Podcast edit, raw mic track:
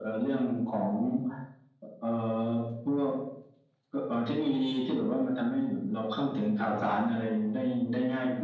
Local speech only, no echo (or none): มาก่อน